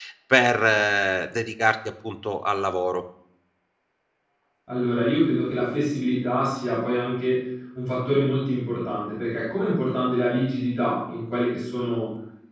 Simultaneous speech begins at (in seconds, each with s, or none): none